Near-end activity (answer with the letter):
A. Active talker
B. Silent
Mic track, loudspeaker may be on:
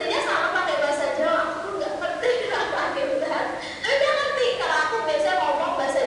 B